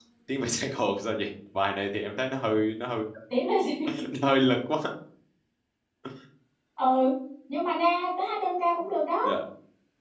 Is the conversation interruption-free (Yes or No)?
Yes